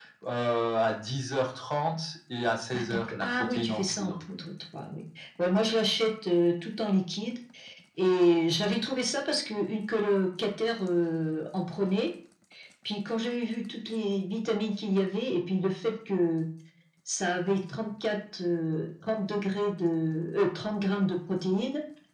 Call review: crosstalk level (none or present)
present